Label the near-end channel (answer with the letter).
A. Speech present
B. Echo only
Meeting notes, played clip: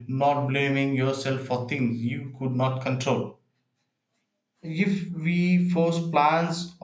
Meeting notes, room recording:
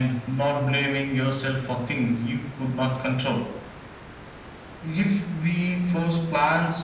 B